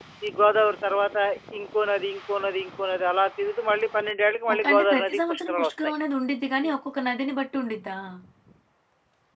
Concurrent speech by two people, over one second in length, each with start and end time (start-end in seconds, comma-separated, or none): 4.5-5.9